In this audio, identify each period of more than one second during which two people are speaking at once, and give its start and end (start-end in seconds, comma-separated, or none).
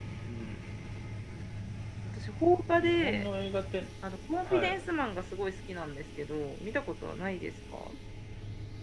none